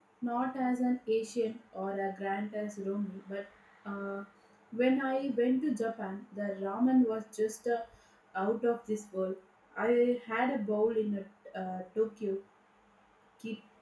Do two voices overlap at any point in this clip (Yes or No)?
No